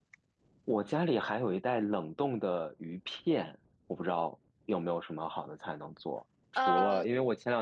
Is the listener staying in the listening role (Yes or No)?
Yes